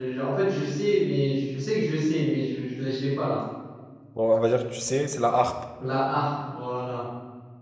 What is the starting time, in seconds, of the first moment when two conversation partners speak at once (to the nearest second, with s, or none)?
none